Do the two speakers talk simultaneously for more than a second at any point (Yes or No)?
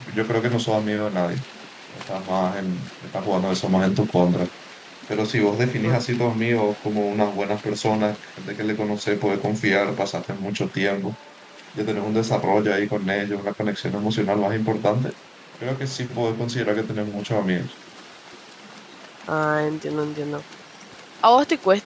No